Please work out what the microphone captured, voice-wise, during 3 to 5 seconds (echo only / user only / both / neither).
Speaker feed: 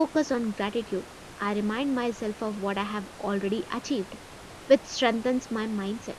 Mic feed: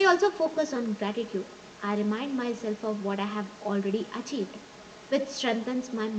echo only